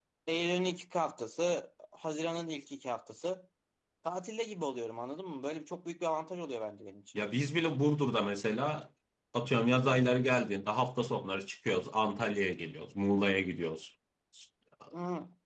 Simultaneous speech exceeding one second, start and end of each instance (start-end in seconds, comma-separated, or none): none